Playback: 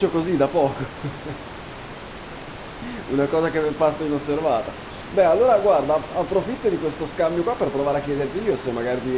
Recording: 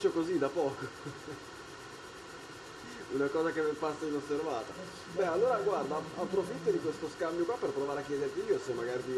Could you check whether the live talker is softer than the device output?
Yes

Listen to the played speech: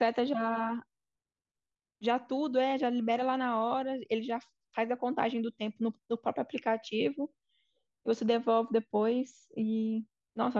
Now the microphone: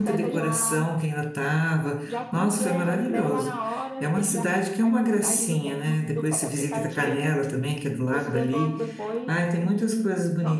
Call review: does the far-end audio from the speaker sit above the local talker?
No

